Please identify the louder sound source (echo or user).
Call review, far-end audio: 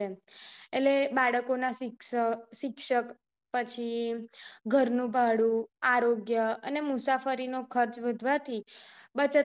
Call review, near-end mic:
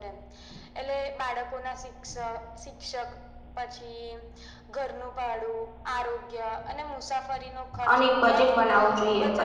user